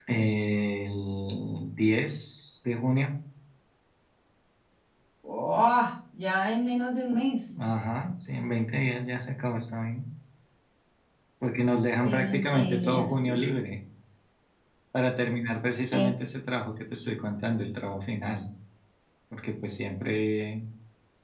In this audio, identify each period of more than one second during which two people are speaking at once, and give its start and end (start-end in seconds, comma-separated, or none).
12.0-13.4